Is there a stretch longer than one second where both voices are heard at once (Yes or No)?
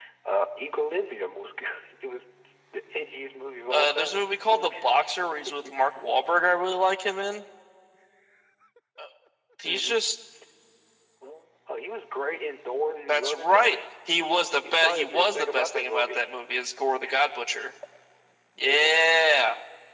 Yes